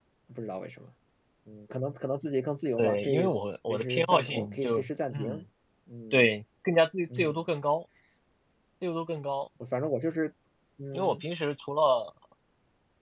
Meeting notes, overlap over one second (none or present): present